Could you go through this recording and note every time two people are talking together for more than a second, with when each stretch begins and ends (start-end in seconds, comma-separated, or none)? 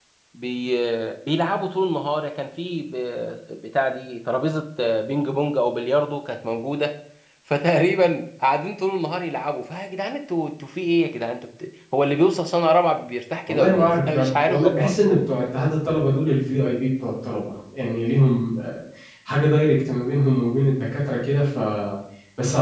13.5-14.9